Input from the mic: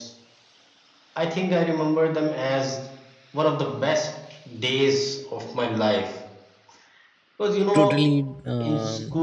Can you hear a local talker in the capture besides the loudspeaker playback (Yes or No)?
Yes